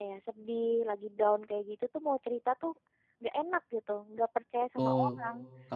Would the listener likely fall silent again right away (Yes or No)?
No